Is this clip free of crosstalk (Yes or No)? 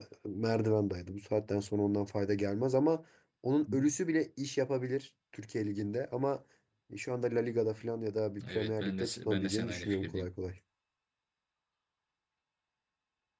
No